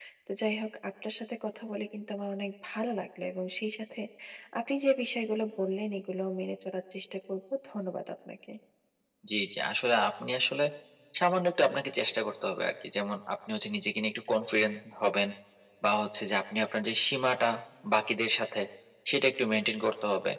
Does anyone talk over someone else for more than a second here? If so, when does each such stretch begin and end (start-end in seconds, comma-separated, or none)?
none